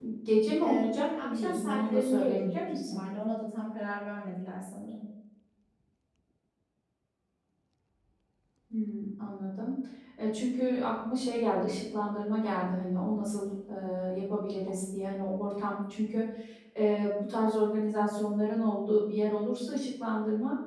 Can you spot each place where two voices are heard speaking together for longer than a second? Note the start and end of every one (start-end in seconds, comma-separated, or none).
0.6-3.0